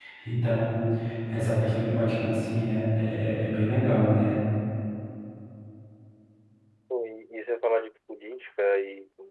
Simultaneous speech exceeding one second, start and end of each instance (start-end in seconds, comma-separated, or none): none